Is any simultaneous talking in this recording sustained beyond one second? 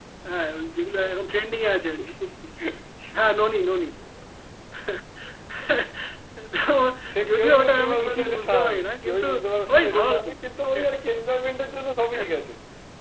Yes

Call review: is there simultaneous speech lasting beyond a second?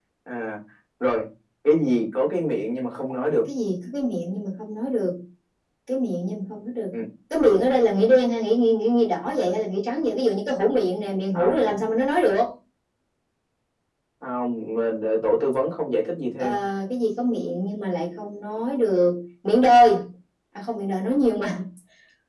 No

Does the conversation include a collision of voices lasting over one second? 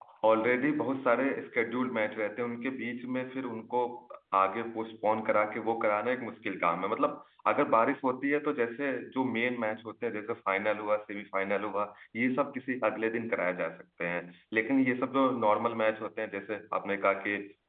No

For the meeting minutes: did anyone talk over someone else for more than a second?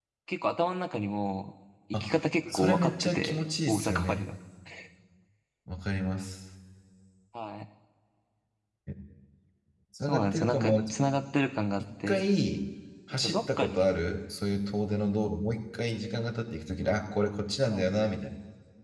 Yes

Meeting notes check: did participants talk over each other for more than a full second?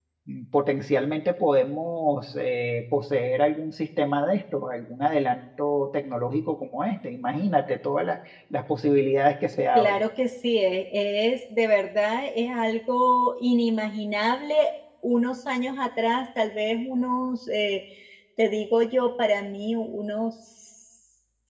No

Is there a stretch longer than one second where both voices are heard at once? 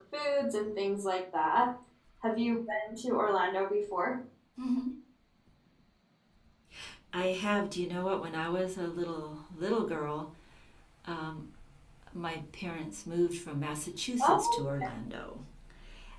No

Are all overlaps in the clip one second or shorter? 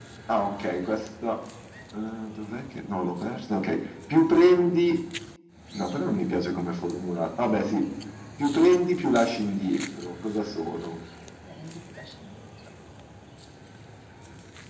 Yes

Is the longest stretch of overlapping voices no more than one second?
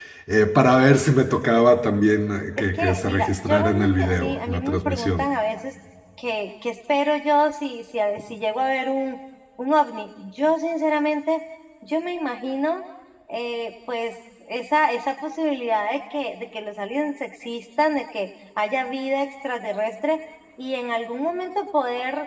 No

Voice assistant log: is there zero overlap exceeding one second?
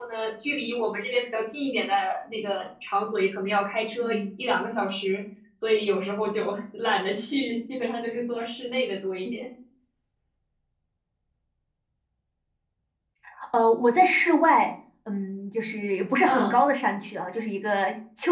Yes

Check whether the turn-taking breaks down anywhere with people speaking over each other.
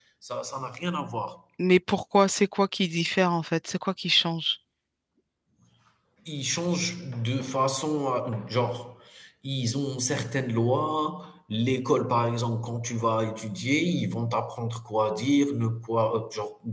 No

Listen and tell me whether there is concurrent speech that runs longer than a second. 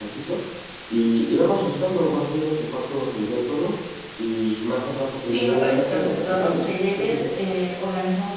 Yes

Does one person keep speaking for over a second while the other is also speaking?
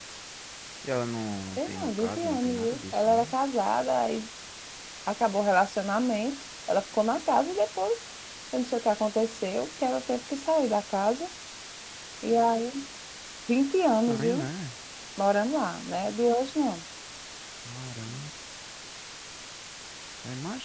Yes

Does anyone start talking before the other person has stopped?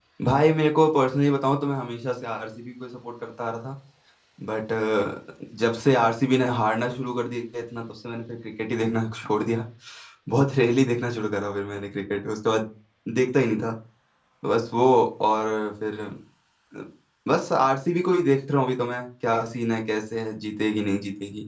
No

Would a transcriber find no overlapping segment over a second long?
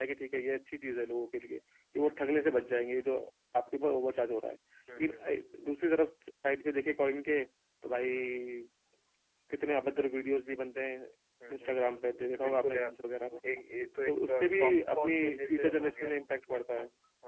No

